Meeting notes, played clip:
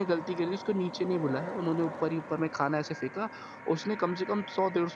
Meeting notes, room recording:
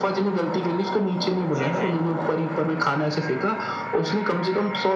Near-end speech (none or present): present